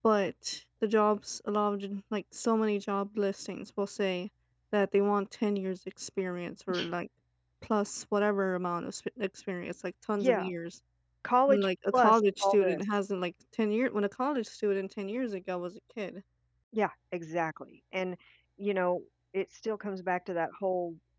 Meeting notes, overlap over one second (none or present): present